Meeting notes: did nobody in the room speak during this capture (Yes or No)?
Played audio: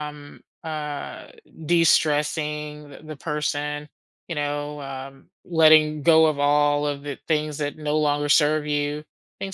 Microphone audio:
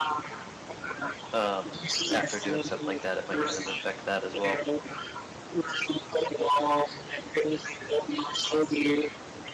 No